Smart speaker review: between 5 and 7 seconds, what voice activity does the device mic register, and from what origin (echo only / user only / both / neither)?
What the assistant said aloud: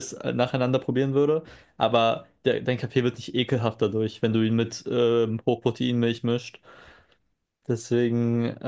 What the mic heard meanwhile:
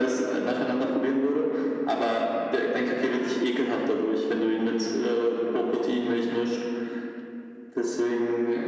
echo only